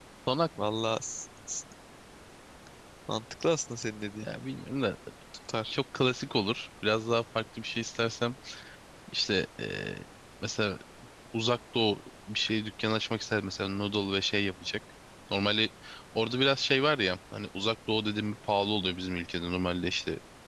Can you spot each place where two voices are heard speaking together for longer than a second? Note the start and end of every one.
none

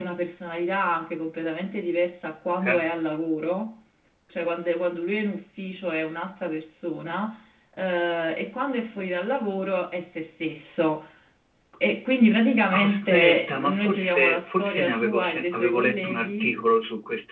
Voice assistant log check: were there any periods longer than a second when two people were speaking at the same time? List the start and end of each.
12.7-16.5

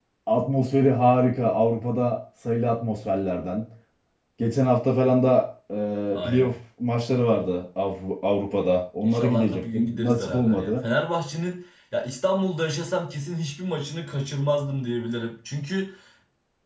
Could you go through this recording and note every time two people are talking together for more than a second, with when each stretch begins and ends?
9.0-10.8

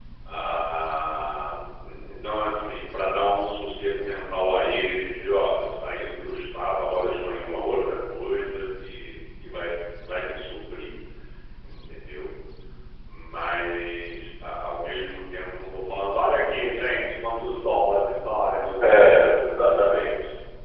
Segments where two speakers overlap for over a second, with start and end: 18.8-20.0

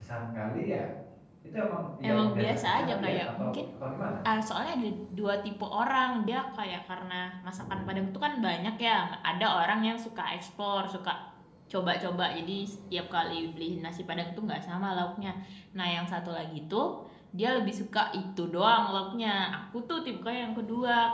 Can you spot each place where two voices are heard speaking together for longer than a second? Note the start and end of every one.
2.1-3.5

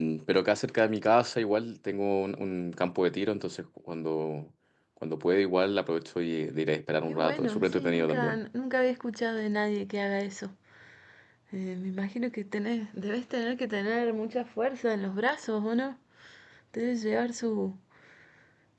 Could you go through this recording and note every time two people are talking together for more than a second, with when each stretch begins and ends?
7.1-8.4

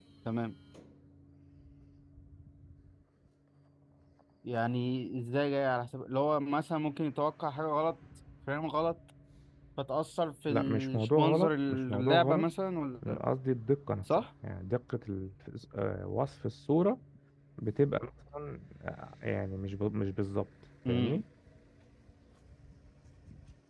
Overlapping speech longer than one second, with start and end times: 10.5-12.4

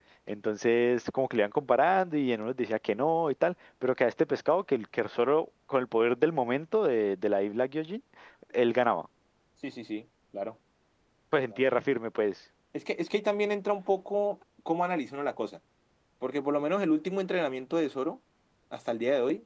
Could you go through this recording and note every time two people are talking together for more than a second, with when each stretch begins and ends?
none

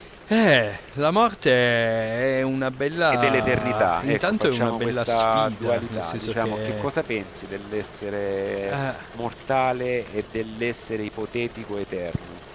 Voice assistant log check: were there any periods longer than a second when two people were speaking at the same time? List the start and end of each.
3.1-6.9

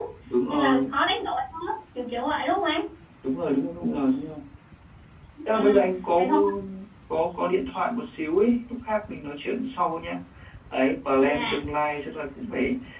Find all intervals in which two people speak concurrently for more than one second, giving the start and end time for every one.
none

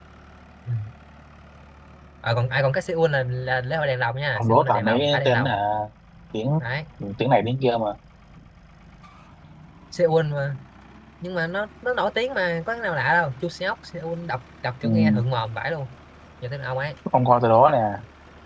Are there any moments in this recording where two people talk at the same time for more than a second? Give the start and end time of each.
4.3-5.6

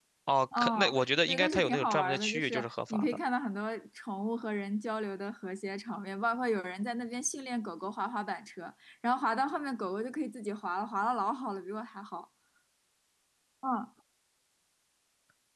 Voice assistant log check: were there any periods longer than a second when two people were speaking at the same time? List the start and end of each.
0.5-3.2

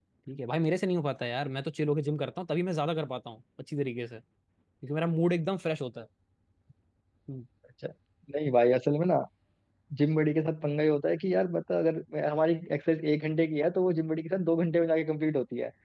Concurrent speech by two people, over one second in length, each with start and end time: none

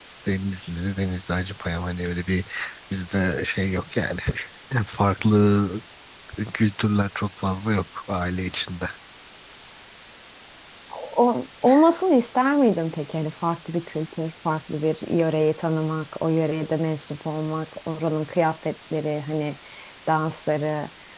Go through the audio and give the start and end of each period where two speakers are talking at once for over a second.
none

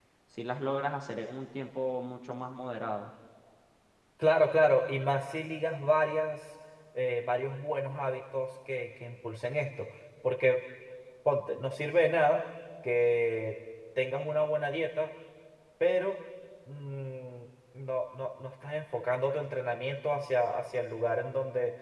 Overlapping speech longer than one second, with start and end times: none

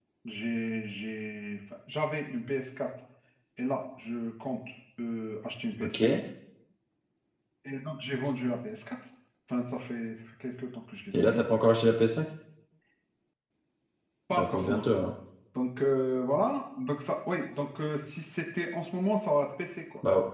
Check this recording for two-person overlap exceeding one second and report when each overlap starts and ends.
none

